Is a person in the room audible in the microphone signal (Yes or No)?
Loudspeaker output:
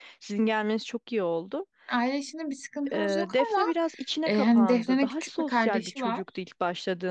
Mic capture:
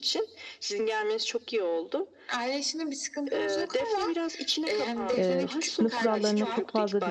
Yes